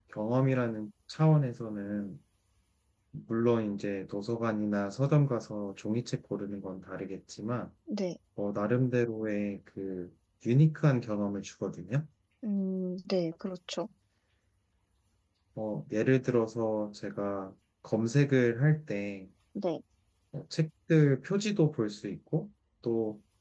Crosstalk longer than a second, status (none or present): none